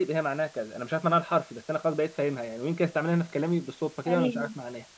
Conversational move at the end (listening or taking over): listening